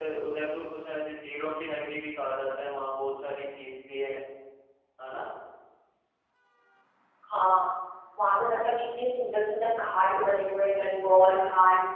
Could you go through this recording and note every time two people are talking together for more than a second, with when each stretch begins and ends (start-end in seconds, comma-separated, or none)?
none